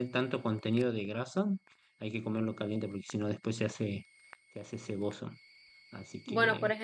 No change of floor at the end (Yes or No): No